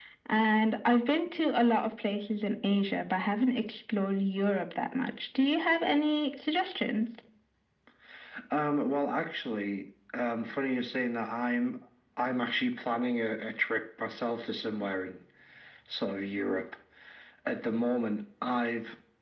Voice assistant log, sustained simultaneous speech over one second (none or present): none